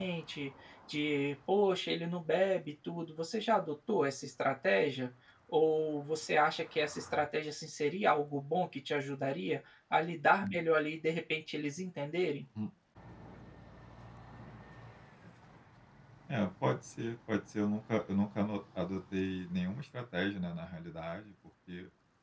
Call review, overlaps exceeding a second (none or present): none